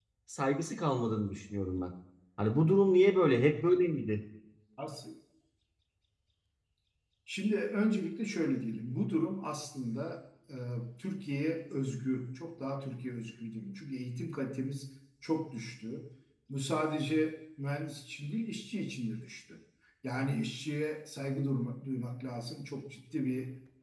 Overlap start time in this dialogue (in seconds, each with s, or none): none